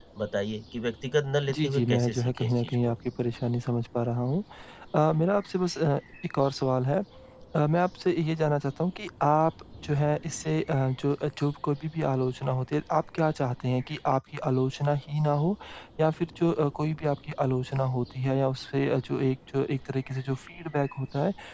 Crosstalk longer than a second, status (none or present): present